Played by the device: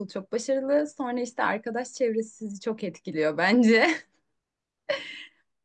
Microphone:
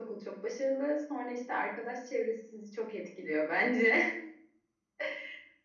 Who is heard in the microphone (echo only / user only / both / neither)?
echo only